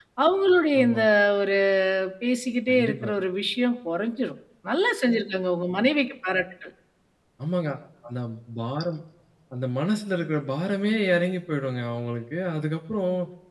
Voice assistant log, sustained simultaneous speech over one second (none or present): none